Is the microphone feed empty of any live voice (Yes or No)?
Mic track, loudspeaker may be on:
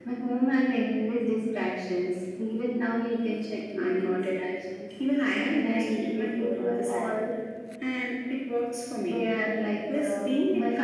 Yes